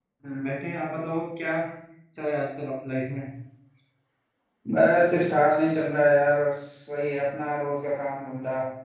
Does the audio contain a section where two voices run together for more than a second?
No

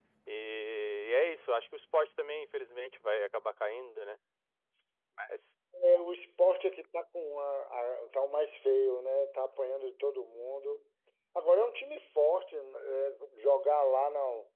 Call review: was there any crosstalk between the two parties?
No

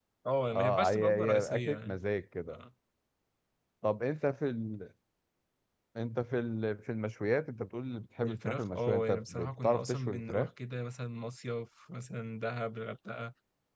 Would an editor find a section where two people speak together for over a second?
Yes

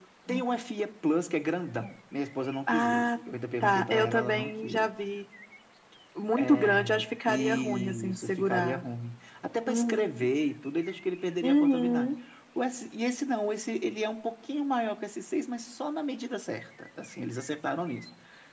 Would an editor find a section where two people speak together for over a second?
Yes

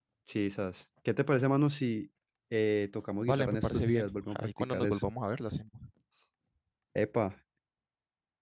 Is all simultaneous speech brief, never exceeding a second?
No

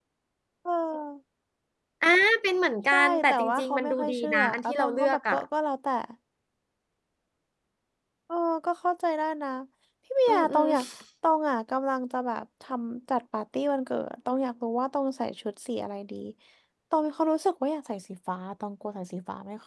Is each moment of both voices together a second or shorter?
No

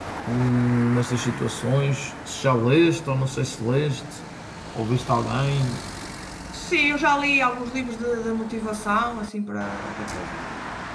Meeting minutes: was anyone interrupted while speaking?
No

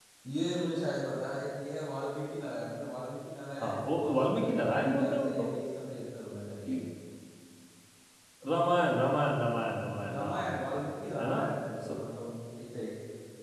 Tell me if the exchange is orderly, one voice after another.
No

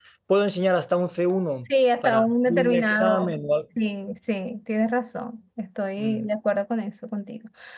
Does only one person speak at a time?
No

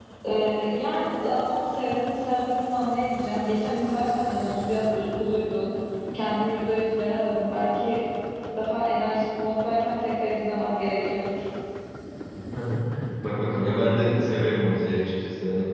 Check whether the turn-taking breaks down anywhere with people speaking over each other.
No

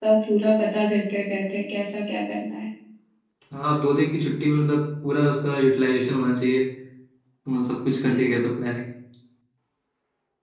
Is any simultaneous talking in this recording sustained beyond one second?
No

